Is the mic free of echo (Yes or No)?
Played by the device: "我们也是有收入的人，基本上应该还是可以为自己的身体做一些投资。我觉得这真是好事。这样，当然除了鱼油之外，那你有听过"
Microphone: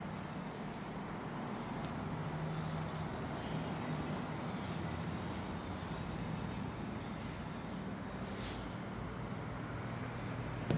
Yes